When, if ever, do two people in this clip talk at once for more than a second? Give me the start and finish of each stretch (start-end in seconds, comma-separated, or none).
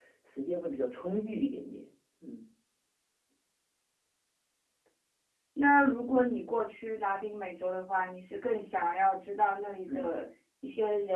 none